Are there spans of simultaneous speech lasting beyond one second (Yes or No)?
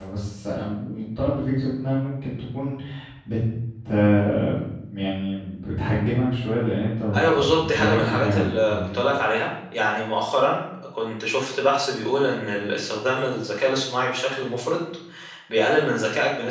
Yes